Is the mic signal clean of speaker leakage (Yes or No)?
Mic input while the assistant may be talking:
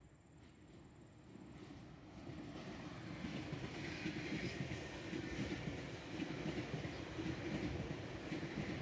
Yes